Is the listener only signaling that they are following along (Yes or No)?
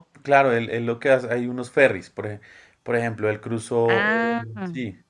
Yes